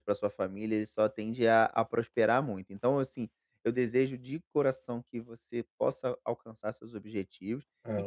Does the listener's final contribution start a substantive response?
No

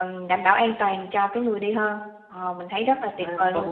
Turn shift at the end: Yes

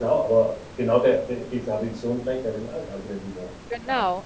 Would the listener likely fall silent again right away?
No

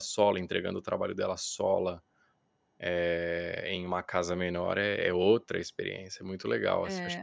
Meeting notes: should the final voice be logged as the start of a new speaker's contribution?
Yes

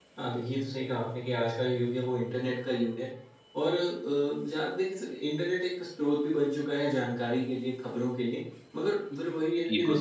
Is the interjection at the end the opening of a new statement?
No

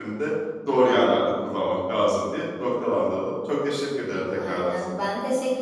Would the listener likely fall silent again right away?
No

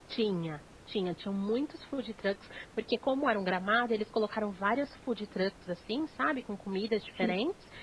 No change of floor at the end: Yes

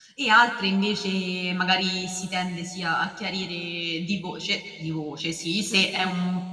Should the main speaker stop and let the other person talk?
No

